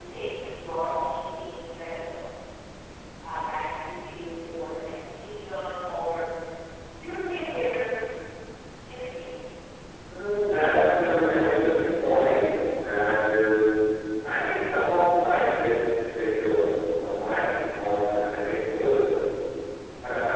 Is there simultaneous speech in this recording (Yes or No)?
No